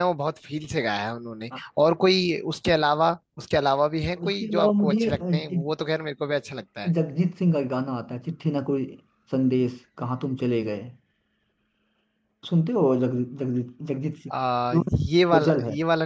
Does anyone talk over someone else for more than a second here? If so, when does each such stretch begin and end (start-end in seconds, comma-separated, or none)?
4.2-5.6